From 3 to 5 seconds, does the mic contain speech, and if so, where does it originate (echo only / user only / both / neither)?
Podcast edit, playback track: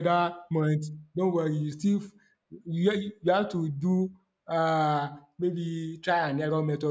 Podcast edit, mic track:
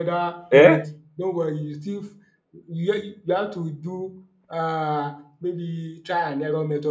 echo only